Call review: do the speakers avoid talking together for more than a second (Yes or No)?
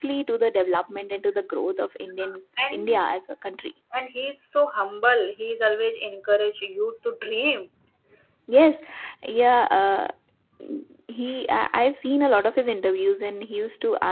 Yes